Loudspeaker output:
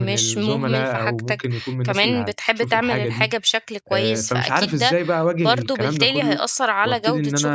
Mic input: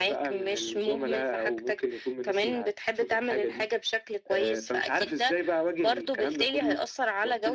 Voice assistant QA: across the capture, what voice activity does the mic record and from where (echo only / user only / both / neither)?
echo only